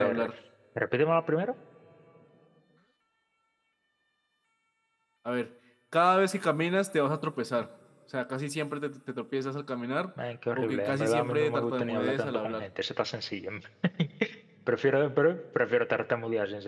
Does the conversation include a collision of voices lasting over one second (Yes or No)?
Yes